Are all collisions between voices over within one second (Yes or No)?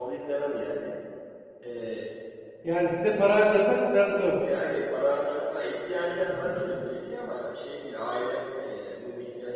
Yes